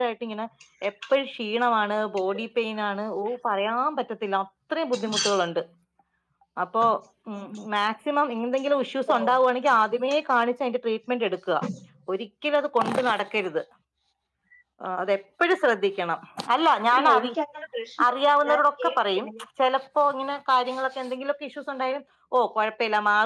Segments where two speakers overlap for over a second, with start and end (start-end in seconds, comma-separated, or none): 18.1-19.3